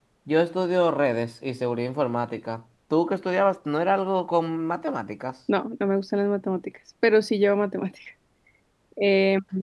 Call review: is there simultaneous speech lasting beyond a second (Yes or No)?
No